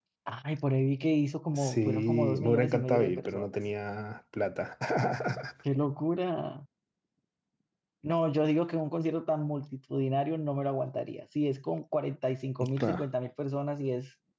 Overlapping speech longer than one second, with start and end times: 1.6-3.5

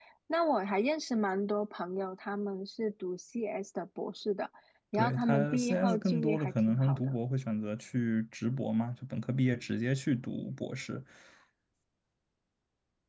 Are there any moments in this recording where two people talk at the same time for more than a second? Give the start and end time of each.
5.0-7.1

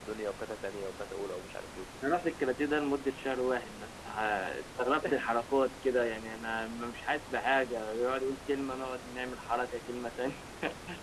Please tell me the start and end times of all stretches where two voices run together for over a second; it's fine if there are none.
none

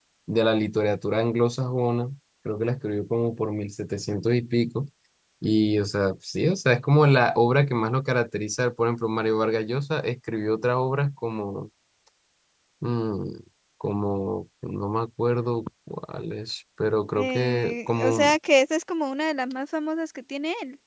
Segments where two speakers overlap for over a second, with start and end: 17.1-18.4

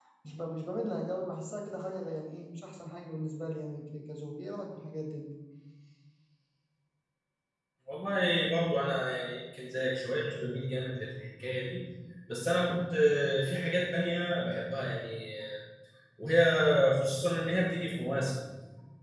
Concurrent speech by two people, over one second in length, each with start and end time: none

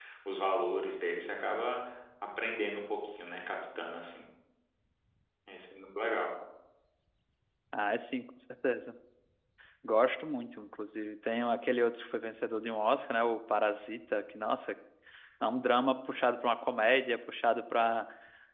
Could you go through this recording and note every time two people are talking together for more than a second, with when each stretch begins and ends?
none

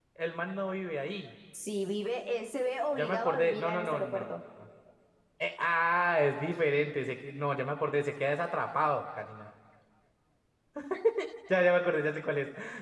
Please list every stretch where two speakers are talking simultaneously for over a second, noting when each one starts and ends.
3.0-4.2

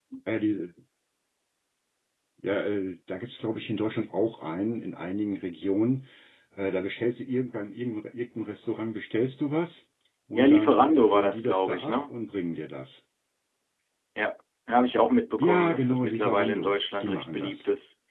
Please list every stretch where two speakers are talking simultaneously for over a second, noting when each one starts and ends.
10.4-12.1, 15.4-17.5

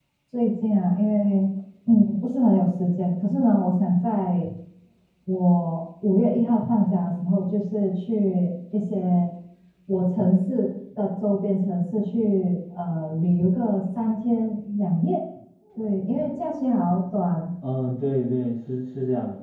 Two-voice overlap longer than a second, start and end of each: none

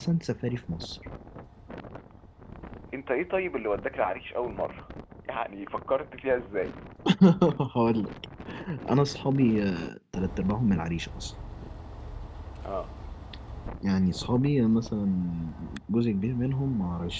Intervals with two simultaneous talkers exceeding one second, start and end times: none

